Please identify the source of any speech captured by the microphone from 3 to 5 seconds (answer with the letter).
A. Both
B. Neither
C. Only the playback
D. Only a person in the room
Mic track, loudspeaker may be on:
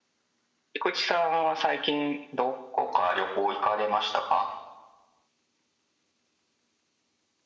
C